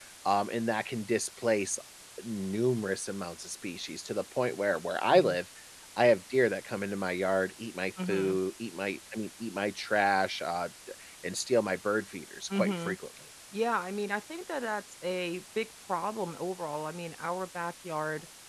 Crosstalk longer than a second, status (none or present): none